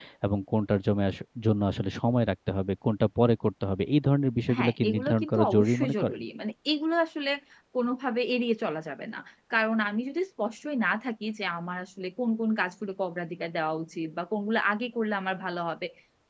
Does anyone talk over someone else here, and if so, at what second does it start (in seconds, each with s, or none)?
4.5 s